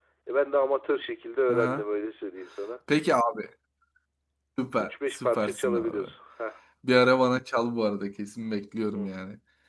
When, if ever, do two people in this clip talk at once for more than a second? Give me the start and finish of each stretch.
4.8-6.1

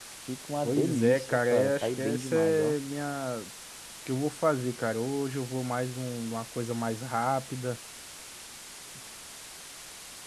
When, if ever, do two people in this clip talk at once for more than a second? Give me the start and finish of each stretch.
0.6-2.7

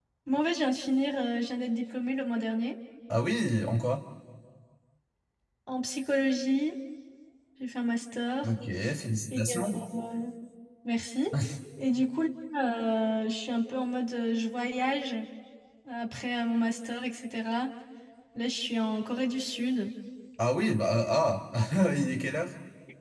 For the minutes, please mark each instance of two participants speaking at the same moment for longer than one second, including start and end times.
none

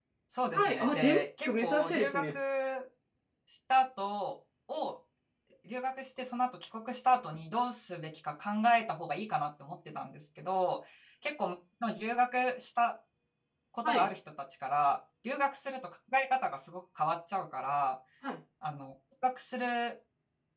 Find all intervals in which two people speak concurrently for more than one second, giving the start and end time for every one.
0.5-2.4

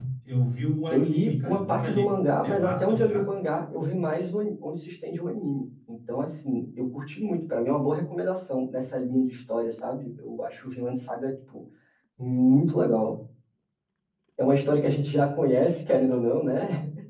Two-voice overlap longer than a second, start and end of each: 0.9-3.3

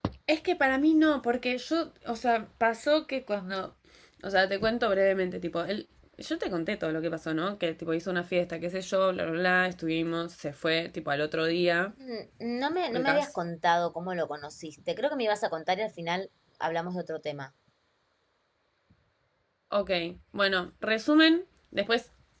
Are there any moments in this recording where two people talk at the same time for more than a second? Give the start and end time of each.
none

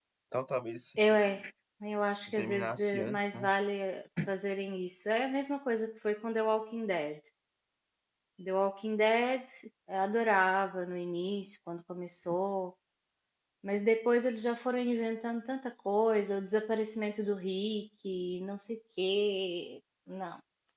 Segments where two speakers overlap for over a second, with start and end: 2.3-3.5

